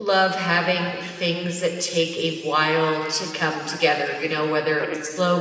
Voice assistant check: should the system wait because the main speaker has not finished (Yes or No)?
Yes